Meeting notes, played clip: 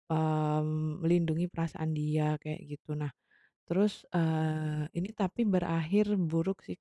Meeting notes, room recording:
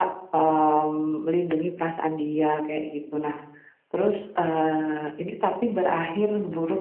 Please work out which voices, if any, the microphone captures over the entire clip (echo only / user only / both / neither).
echo only